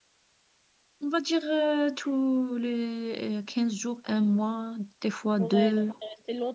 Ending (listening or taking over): taking over